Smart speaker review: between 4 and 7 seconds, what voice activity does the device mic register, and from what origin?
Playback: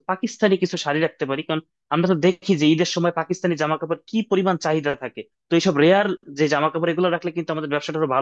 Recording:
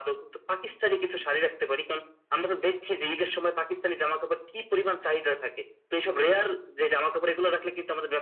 echo only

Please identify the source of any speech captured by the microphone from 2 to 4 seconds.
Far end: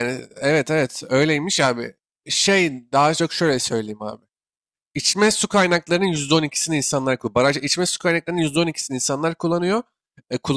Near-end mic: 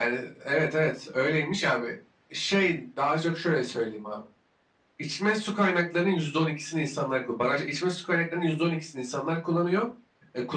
echo only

